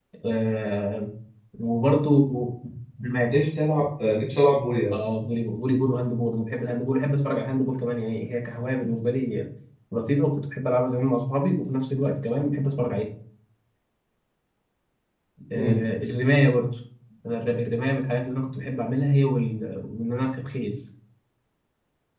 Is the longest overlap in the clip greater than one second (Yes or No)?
No